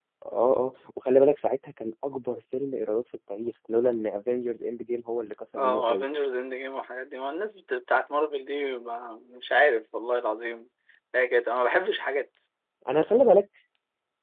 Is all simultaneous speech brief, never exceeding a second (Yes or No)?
Yes